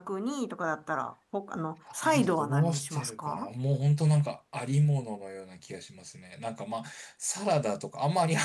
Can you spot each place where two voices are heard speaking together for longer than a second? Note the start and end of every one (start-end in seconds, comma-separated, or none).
2.0-3.5